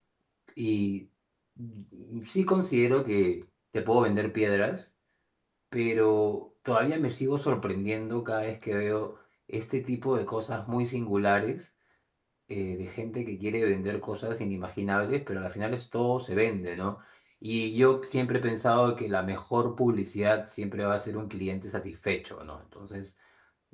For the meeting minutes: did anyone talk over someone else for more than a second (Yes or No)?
No